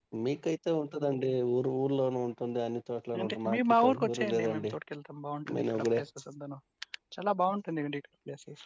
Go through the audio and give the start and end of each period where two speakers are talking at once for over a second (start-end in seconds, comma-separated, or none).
3.2-4.7